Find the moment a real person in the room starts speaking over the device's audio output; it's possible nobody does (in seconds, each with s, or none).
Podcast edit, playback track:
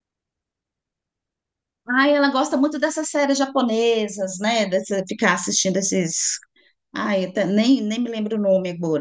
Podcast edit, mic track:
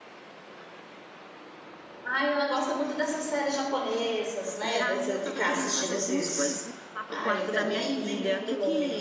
4.6 s